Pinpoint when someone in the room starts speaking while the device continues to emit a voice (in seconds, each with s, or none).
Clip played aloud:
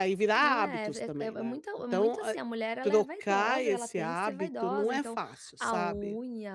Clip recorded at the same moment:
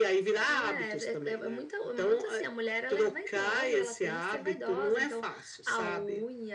none